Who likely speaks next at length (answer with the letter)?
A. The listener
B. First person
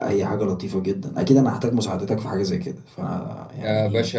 A